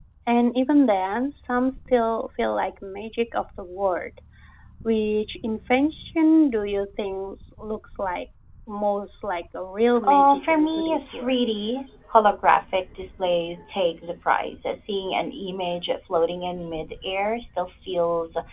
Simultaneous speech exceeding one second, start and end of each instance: 10.1-11.4

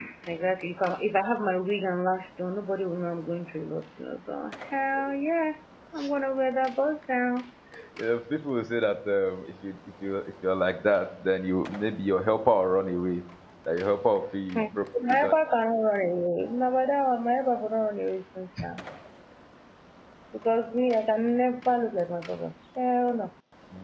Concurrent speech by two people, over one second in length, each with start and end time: none

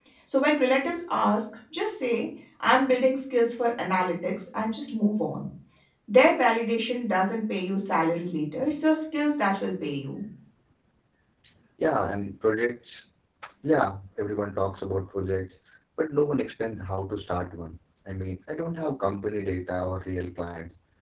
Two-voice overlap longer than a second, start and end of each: none

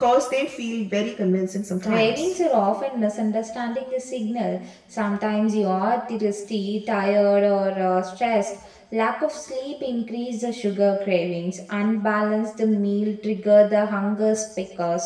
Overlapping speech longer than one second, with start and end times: none

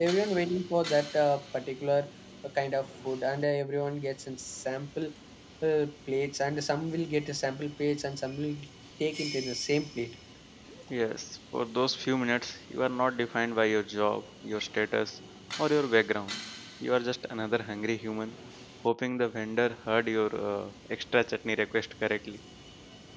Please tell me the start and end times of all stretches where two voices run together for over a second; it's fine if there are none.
none

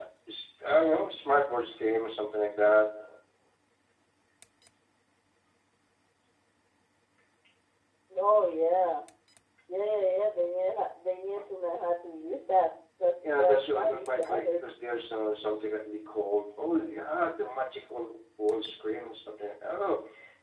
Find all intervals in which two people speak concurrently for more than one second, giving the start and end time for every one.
13.4-14.6

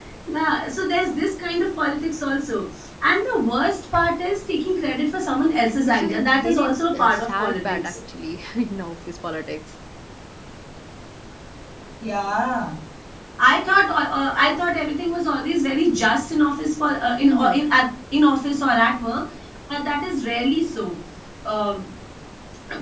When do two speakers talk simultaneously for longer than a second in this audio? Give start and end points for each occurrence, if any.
5.8-8.0

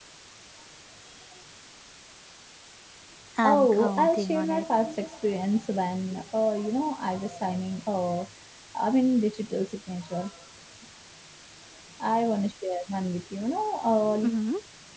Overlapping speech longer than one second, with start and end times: 3.4-4.6

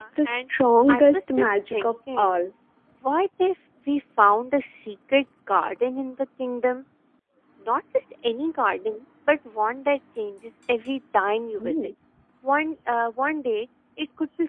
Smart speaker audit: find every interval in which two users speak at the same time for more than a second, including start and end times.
0.9-2.4

